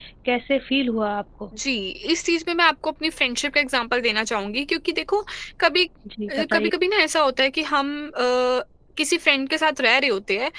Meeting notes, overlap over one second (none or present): none